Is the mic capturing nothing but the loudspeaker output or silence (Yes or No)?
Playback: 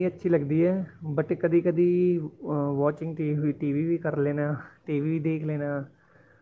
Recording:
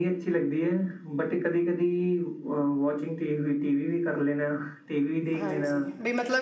No